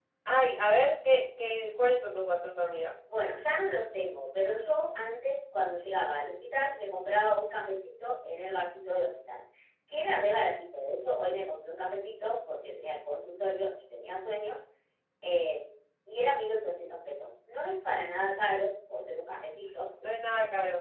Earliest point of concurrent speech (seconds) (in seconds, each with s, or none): none